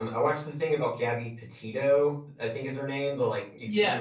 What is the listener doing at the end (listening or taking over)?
listening